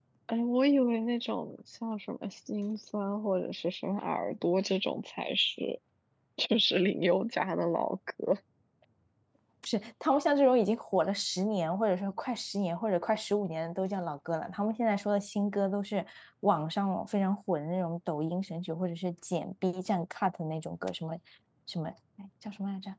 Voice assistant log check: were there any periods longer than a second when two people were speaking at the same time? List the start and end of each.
none

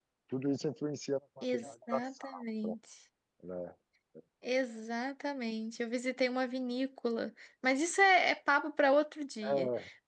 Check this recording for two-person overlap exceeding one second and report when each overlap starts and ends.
1.4-2.8

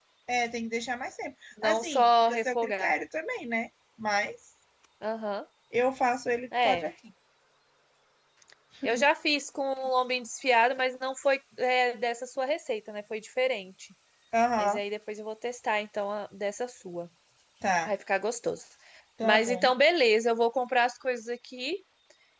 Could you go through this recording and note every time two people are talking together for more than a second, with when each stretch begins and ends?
1.6-2.9

